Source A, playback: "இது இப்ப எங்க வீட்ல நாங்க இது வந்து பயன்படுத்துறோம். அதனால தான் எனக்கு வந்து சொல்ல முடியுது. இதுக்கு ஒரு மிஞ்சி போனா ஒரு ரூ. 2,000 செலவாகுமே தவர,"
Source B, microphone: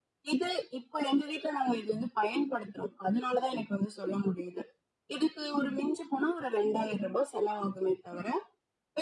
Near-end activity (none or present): none